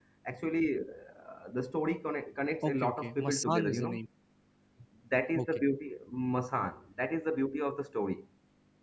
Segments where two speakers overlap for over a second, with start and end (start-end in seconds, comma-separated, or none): 2.6-4.0